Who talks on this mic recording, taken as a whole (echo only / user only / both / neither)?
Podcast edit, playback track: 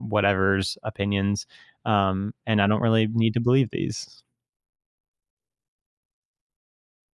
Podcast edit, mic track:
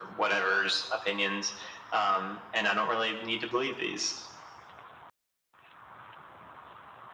echo only